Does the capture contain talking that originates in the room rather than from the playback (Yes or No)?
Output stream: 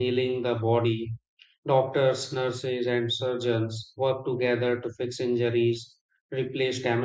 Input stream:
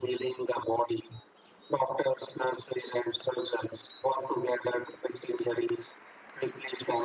No